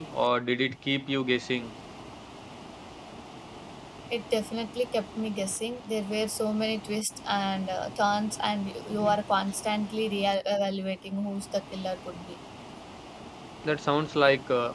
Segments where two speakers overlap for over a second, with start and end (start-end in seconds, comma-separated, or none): none